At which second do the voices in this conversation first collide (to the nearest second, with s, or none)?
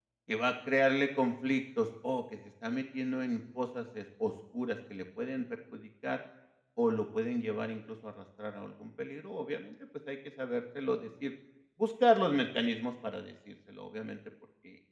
none